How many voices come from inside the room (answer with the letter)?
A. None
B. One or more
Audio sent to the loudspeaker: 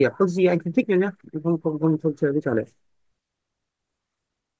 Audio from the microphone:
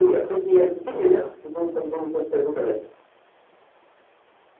B